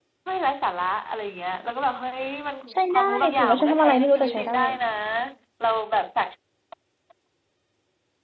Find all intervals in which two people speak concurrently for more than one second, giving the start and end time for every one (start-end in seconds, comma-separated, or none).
2.9-4.5